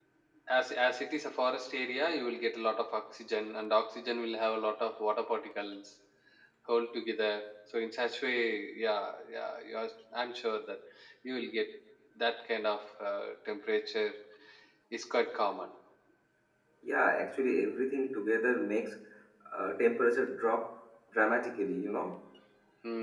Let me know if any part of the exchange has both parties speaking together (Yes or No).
No